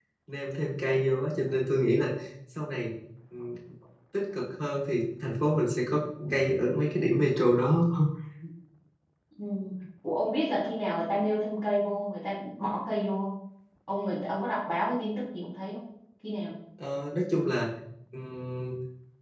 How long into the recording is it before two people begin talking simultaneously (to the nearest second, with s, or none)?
none